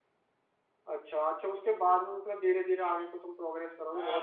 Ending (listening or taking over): taking over